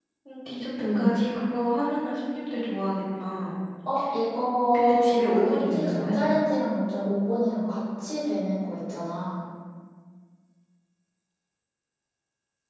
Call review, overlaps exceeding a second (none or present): present